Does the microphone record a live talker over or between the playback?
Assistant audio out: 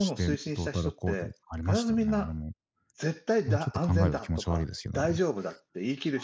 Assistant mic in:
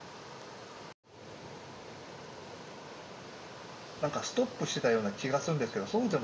Yes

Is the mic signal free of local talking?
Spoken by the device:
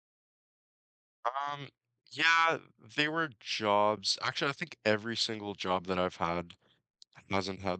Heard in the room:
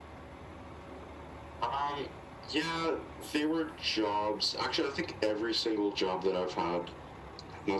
Yes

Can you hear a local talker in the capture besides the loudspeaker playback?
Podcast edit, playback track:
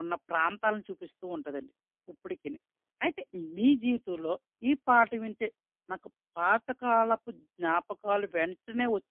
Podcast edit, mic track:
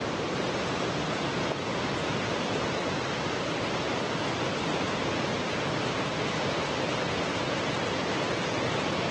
No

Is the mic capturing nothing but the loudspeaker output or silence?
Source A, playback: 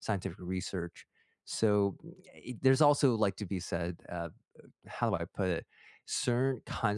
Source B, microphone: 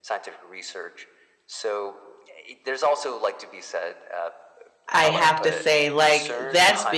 No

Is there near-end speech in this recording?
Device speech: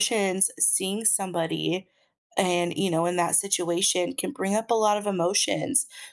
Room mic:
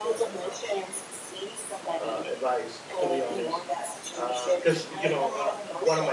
Yes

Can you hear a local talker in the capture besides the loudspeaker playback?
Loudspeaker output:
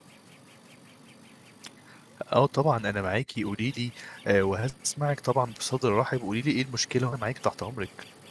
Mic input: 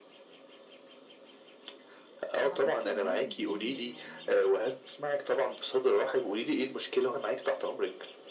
Yes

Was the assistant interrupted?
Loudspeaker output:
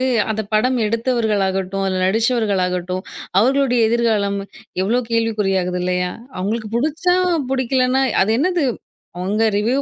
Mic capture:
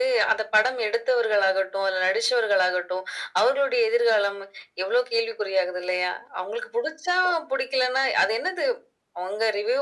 No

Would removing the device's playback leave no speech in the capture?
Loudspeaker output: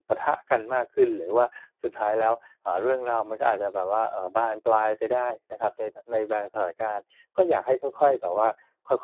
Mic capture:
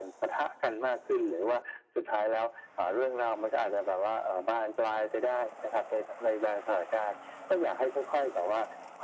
Yes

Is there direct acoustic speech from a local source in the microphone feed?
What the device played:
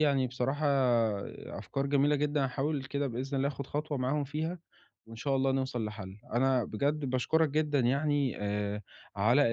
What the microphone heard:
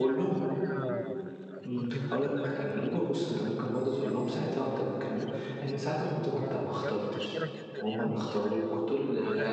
Yes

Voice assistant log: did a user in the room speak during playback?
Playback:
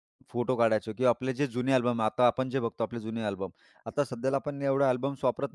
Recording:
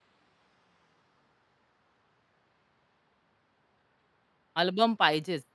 Yes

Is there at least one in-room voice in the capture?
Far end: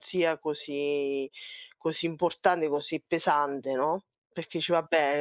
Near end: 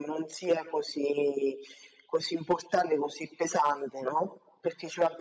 No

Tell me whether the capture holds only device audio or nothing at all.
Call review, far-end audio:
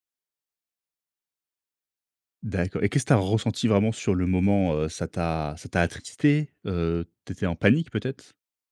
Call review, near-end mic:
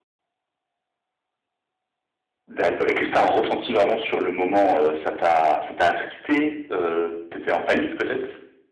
Yes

